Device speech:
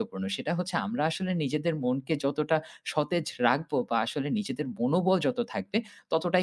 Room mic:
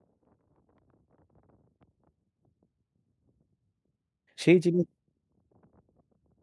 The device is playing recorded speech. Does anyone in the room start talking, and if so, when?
4.4 s

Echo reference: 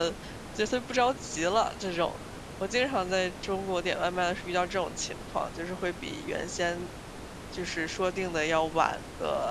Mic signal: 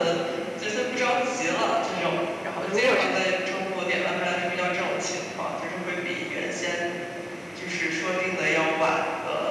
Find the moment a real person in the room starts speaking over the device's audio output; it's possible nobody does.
2.4 s

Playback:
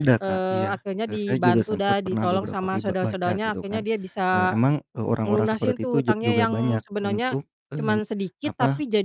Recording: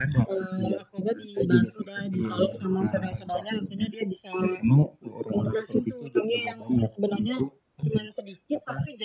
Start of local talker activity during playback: 2.1 s

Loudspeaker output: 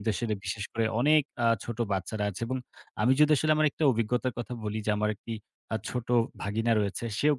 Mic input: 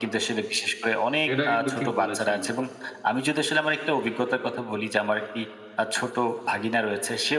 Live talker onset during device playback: 1.3 s

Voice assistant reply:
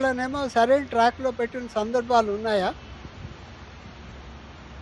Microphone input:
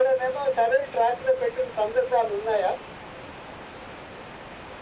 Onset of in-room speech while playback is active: none

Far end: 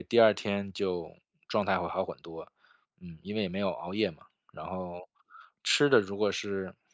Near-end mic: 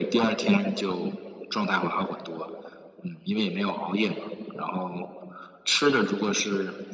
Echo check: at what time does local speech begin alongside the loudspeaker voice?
none

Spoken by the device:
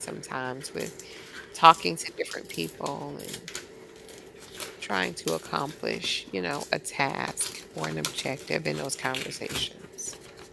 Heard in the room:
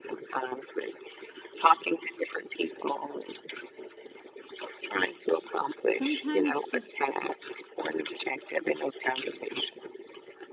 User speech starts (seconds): 5.9 s

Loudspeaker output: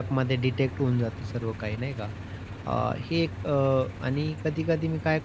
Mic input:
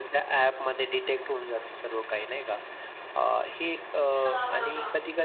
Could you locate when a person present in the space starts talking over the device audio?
4.2 s

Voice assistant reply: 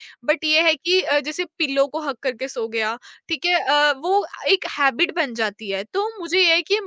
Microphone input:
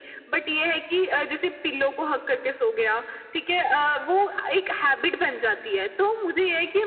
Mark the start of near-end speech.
none

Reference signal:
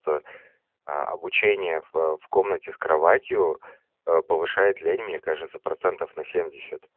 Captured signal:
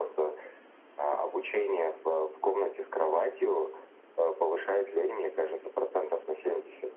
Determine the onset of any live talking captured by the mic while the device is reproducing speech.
none

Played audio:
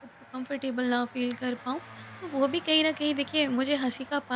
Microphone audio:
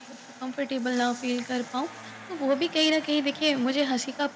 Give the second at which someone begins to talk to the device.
none

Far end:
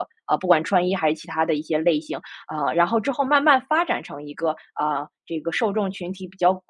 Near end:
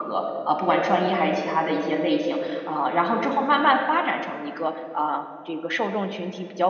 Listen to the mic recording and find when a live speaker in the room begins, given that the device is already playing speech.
none

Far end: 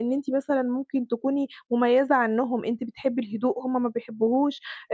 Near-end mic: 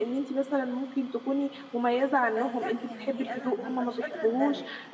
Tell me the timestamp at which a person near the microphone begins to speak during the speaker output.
2.4 s

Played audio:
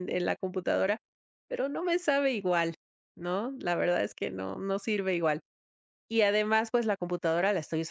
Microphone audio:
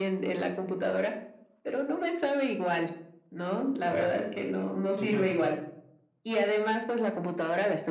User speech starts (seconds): 3.9 s

